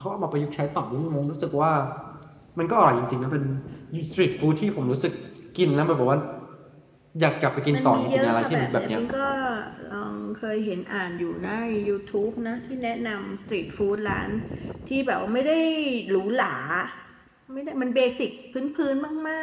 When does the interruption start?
7.7 s

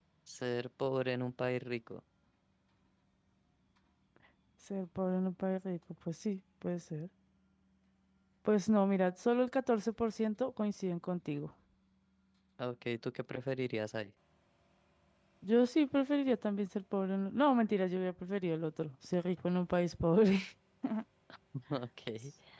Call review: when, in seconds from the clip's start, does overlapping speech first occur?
none

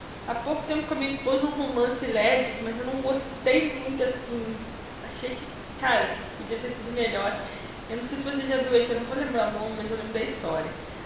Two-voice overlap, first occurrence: none

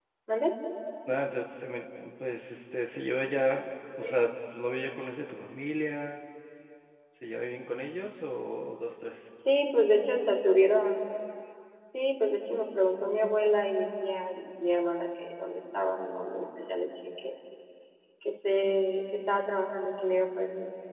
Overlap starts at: none

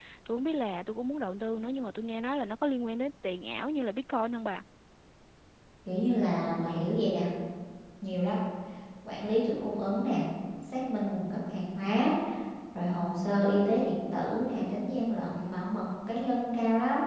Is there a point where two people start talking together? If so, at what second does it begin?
none

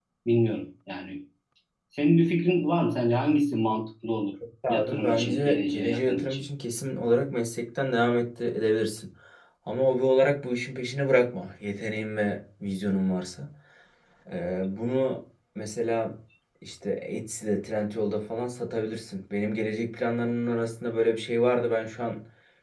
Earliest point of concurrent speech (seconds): 4.6 s

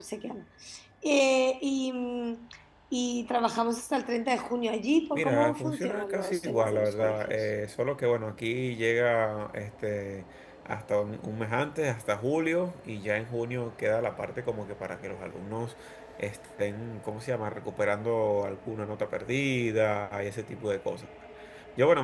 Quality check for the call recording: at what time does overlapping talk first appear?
5.2 s

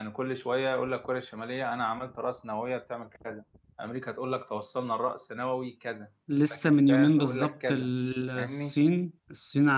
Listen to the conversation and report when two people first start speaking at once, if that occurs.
6.5 s

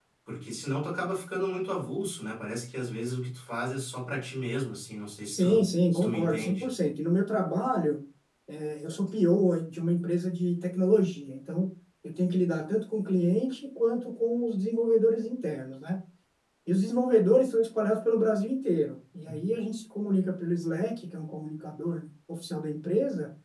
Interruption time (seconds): 5.3 s

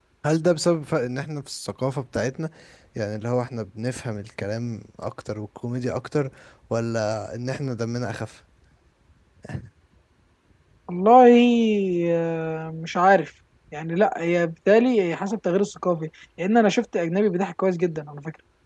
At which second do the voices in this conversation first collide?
none

